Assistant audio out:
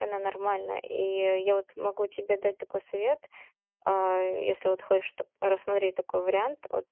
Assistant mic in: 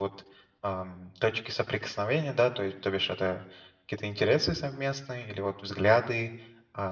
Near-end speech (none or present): present